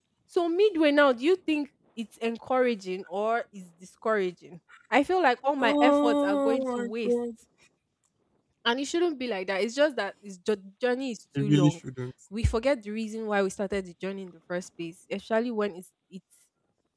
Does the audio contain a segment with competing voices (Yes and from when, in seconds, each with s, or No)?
Yes, from 5.6 s